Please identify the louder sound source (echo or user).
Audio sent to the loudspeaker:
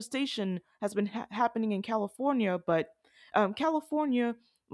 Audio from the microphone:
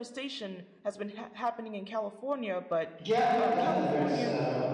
user